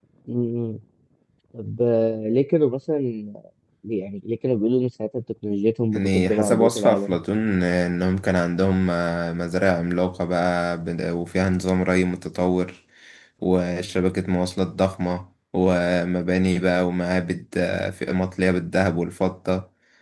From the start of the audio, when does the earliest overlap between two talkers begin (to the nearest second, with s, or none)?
6 s